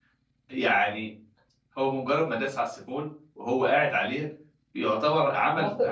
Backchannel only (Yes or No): Yes